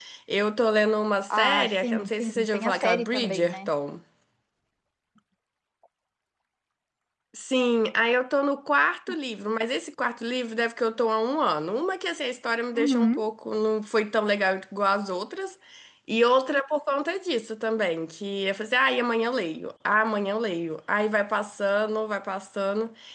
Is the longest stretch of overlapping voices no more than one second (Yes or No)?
No